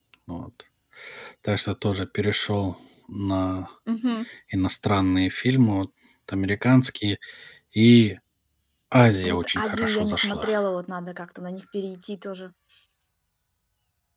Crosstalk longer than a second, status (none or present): present